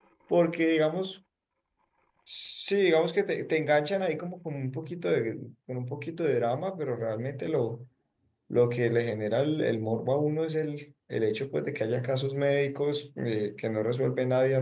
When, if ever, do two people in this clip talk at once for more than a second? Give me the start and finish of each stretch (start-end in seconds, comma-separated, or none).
none